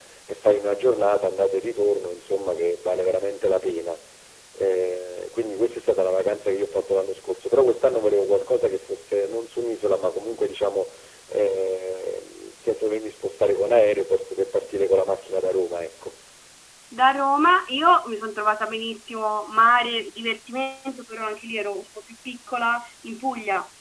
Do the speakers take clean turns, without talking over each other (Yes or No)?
Yes